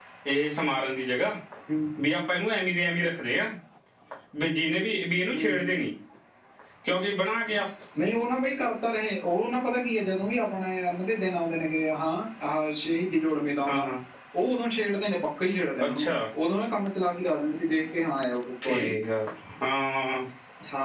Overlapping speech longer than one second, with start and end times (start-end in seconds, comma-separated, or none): none